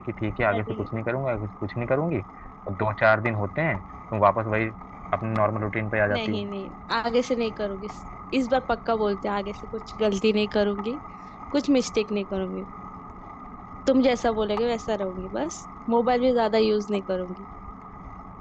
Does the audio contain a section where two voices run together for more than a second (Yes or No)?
No